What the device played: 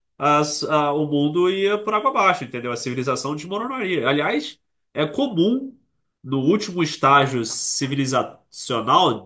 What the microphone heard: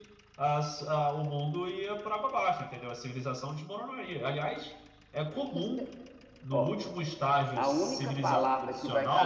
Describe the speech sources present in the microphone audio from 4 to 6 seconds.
both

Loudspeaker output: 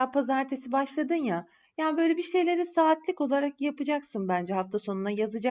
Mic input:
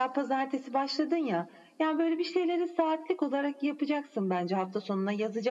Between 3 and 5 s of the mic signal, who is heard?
echo only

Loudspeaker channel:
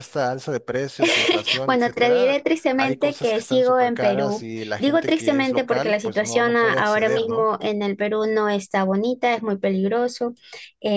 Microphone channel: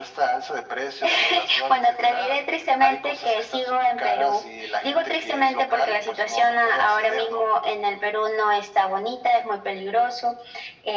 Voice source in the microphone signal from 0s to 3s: echo only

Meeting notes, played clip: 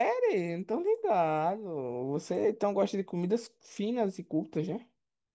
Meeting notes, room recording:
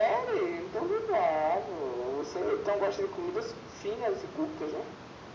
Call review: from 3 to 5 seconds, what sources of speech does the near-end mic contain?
echo only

